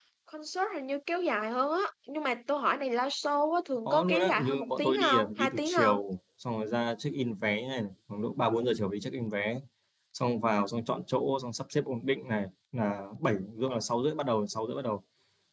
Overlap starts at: 4 s

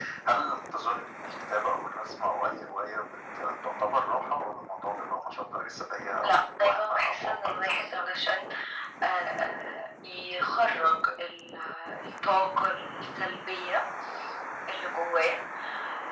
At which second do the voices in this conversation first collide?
6 s

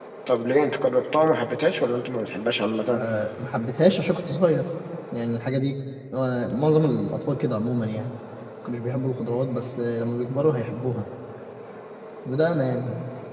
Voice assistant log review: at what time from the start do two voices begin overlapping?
none

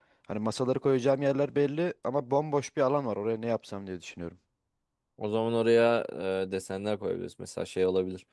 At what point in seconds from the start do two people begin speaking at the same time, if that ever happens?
none

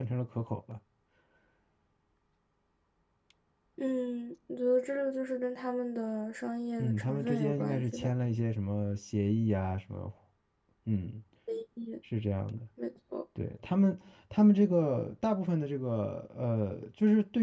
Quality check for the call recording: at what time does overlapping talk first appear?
7 s

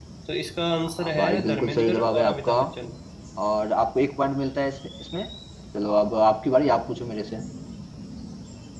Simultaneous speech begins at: 1 s

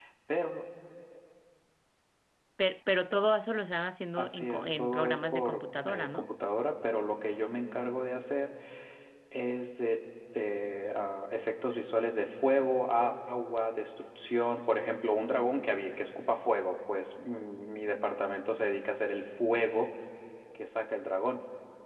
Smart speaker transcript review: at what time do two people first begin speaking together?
4 s

